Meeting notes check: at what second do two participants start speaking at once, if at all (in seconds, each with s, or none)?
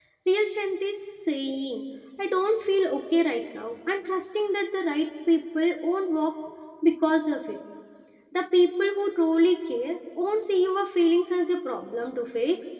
none